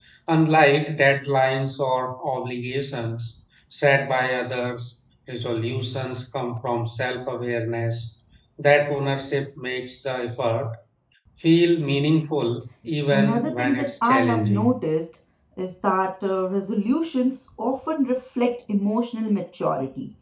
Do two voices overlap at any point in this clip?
Yes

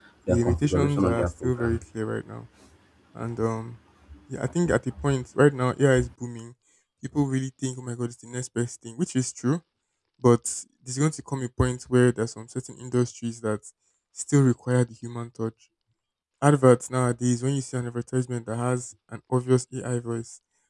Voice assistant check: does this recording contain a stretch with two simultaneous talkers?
Yes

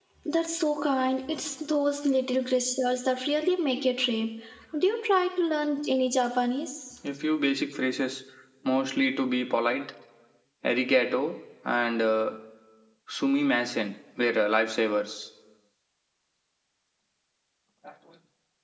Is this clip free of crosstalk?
Yes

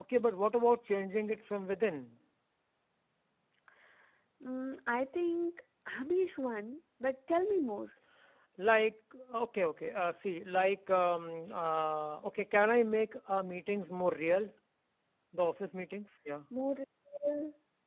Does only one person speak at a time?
Yes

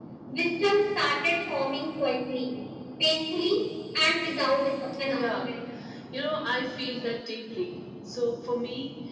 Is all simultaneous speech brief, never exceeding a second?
Yes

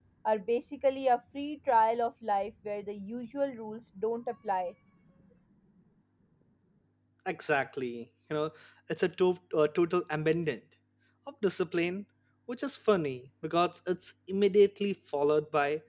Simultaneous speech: No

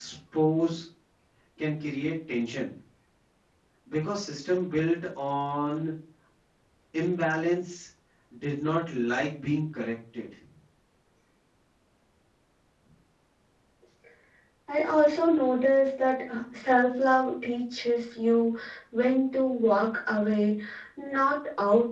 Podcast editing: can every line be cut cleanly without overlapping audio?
Yes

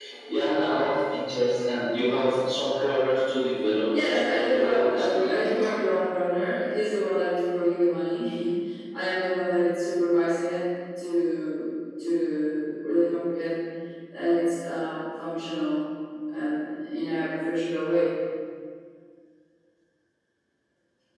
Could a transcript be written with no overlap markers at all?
No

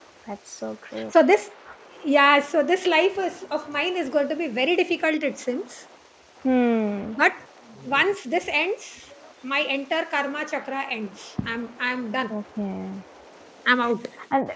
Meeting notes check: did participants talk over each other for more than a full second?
No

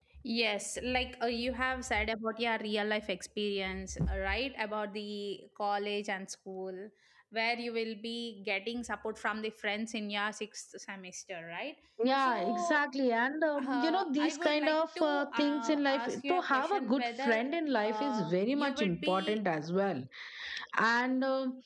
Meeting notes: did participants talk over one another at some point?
Yes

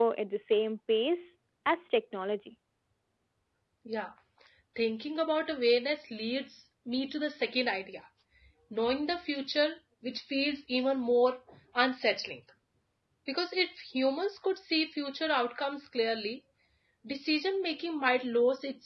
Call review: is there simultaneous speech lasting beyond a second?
No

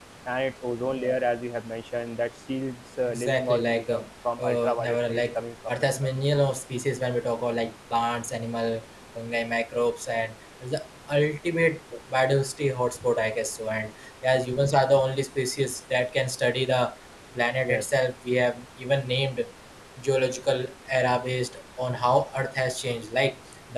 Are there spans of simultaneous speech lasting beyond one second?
Yes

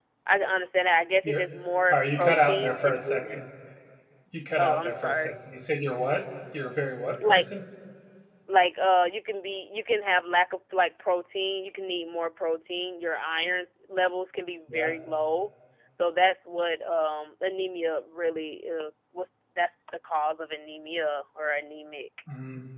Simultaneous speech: Yes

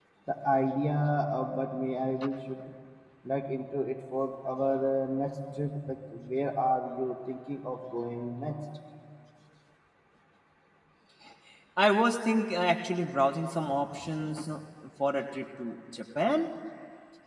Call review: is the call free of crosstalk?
Yes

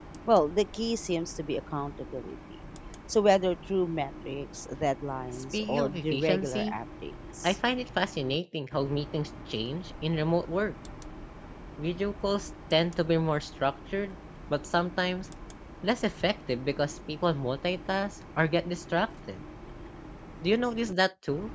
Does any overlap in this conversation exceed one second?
Yes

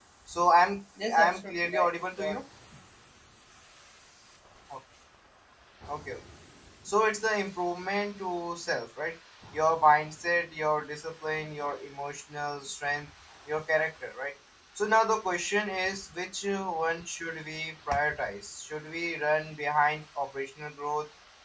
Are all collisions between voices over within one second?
No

